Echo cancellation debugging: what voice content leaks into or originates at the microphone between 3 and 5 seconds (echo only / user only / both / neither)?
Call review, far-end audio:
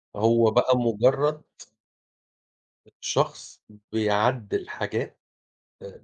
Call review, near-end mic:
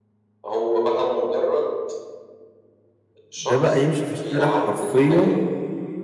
both